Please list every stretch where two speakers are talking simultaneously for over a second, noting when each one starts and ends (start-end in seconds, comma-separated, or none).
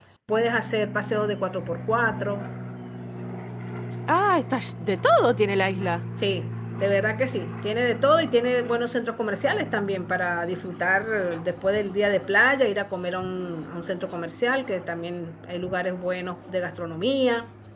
none